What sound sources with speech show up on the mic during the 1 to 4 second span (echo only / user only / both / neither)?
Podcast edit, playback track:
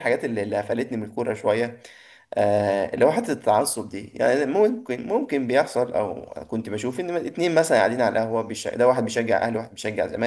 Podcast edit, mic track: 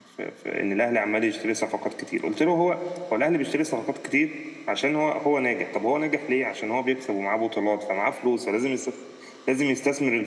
user only